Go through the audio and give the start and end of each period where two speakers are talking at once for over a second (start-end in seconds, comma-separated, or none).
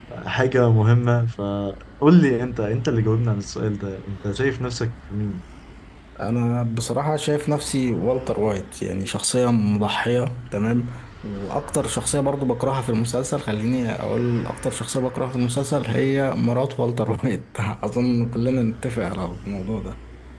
none